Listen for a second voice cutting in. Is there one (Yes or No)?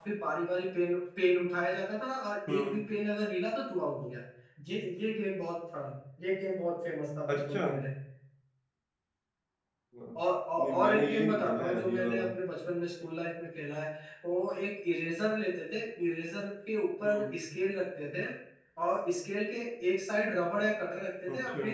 Yes